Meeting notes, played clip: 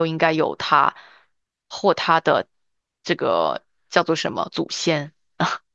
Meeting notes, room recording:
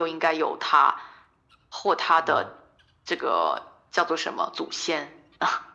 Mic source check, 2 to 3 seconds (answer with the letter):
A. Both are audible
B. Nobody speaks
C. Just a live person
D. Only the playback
A